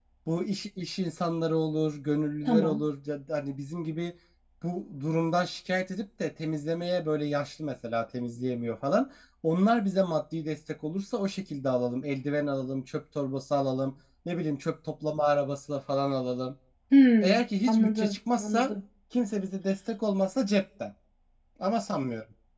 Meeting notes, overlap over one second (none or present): present